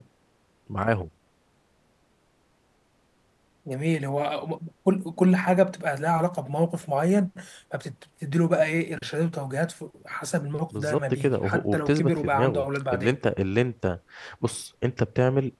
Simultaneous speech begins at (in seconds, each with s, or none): 10.7 s